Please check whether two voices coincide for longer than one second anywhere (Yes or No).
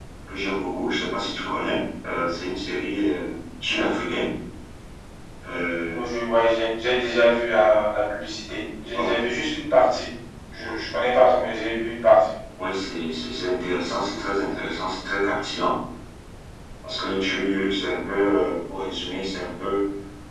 No